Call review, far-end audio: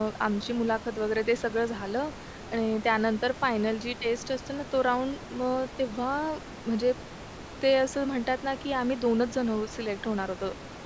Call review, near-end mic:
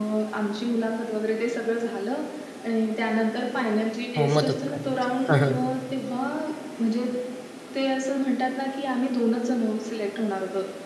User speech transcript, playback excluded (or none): हो, मदत करायची. हं, हं.